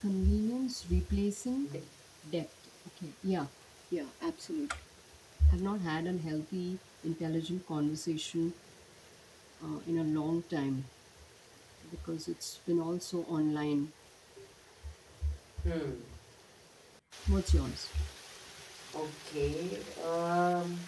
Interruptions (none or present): none